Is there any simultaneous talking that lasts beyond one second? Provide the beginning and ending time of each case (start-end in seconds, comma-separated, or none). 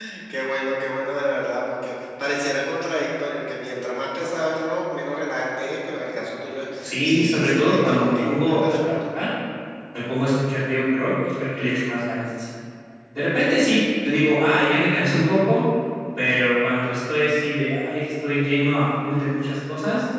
6.8-9.0